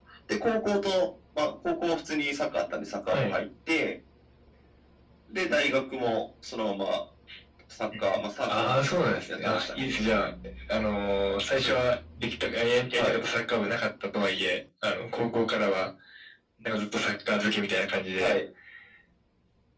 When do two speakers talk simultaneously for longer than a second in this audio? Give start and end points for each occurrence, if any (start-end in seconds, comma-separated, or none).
8.5-9.8